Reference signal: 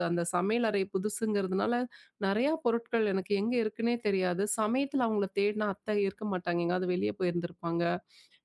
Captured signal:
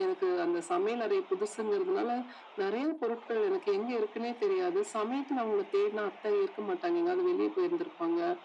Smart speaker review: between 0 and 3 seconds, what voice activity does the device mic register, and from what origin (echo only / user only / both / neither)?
echo only